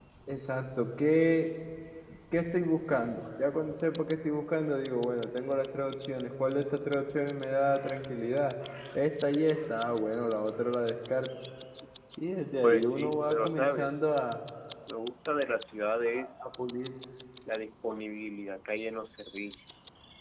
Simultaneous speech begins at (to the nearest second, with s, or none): 13 s